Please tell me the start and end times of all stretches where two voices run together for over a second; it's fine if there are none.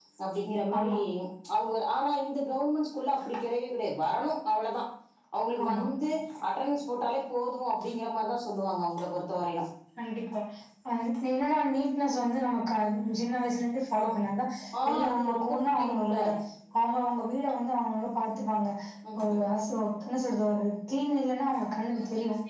14.9-16.1

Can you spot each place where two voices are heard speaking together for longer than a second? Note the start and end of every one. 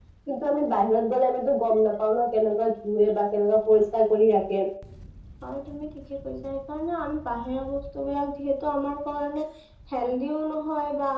none

